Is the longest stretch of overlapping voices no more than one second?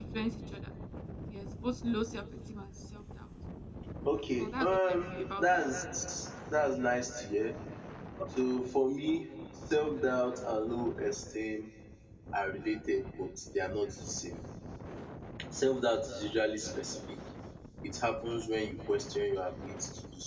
No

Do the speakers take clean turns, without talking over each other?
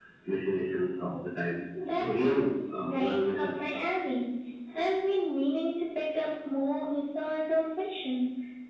No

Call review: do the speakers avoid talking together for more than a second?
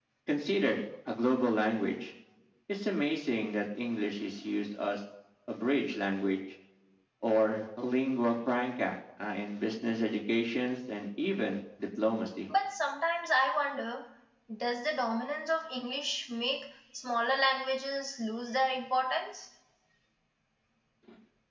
Yes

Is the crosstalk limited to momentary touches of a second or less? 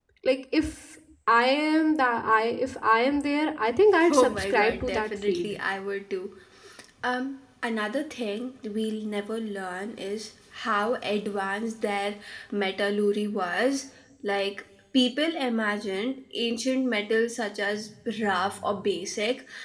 No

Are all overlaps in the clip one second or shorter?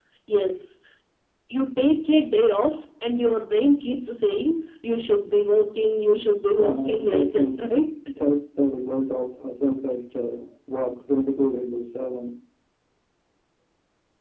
No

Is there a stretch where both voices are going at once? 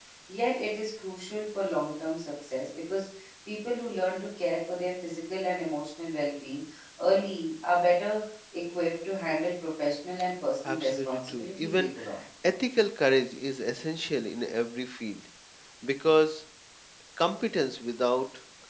Yes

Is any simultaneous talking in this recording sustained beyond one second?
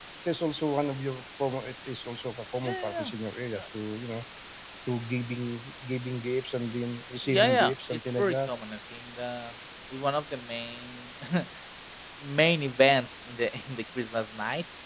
Yes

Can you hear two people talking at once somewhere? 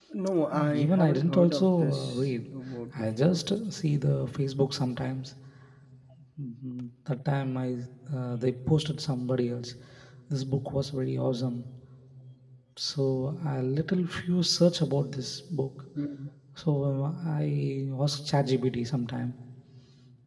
Yes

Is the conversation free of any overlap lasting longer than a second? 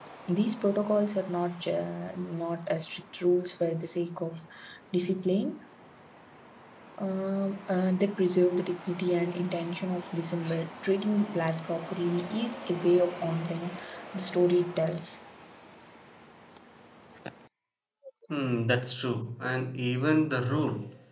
Yes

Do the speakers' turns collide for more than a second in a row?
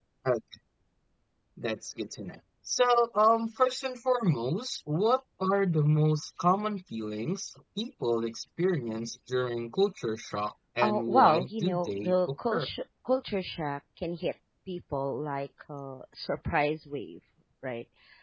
Yes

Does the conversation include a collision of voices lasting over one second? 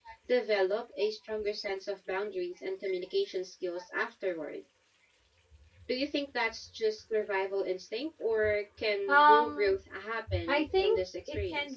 Yes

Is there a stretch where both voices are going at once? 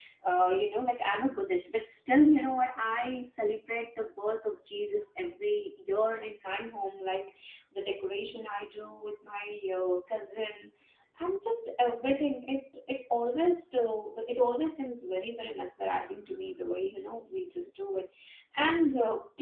No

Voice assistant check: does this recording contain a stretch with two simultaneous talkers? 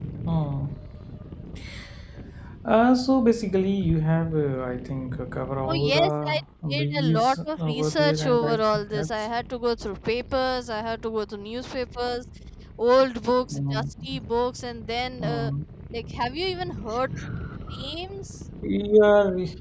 Yes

